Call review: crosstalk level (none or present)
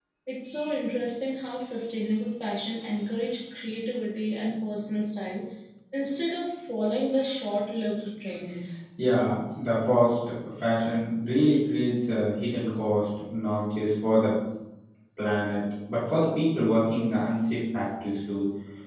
none